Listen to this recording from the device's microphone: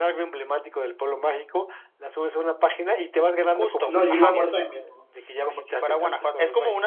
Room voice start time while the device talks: 3.8 s

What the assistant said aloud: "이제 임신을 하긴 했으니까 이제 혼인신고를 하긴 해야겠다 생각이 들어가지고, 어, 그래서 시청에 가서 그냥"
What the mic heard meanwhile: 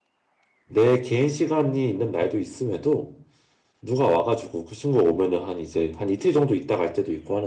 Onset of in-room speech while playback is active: 0.6 s

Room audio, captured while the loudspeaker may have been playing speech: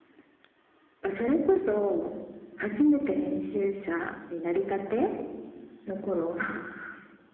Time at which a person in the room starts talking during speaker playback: none

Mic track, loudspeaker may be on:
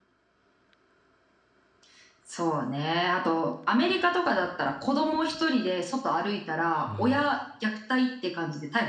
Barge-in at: 6.6 s

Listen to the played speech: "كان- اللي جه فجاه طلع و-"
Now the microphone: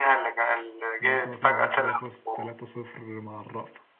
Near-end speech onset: 1.0 s

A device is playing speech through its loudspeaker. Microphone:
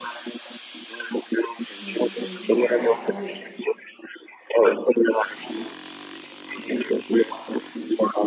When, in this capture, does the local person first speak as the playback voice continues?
1.8 s

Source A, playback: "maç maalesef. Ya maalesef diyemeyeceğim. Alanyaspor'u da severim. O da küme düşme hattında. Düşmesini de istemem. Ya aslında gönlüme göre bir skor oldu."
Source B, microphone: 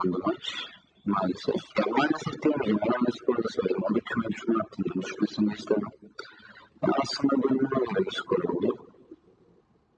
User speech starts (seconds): none

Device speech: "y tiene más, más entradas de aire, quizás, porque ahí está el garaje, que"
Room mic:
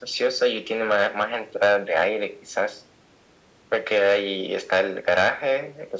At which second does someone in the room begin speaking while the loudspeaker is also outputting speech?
none

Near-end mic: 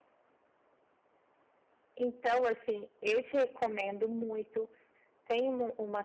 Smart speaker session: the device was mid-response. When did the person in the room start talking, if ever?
2.0 s

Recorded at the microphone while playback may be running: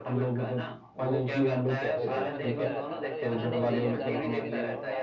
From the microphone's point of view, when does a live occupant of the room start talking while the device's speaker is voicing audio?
2.0 s

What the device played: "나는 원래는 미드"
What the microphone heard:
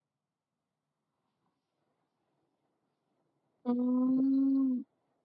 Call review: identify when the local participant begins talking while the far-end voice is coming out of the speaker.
3.6 s

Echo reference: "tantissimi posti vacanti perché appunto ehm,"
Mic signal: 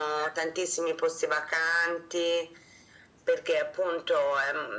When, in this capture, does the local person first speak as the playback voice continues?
none

